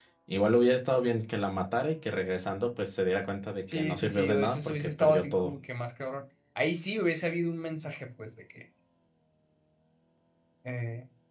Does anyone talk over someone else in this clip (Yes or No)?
Yes